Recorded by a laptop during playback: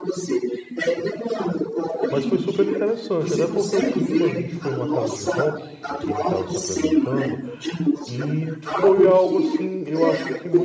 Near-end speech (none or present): present